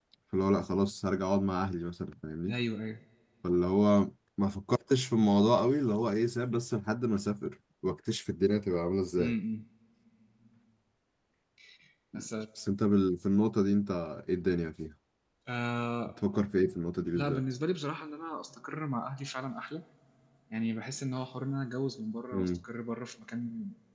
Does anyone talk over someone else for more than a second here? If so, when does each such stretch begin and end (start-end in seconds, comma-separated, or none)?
none